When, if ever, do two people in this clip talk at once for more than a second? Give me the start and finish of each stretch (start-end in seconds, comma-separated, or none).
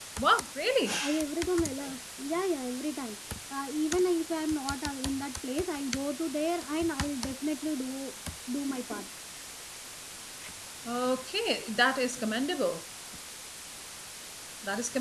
none